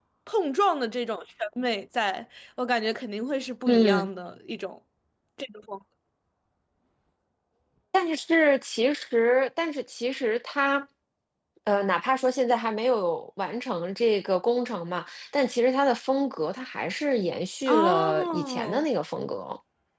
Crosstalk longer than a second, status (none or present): present